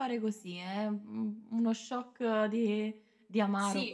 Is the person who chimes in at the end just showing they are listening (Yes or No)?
No